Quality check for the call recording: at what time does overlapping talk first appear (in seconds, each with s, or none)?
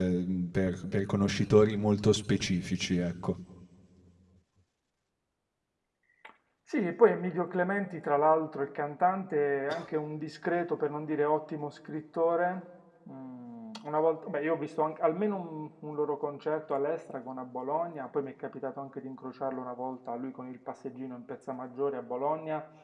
none